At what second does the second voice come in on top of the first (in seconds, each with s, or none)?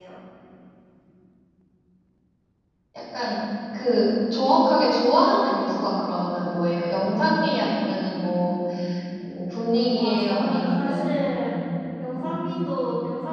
9.9 s